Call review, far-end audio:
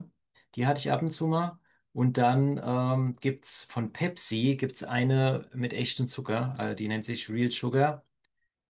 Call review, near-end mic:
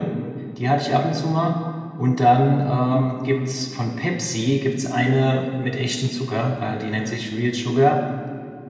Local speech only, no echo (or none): none